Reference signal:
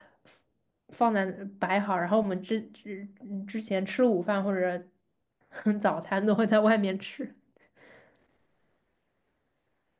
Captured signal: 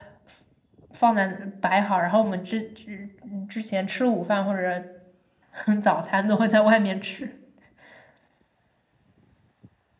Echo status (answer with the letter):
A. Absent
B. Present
B